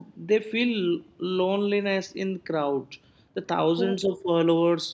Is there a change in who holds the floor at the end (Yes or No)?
No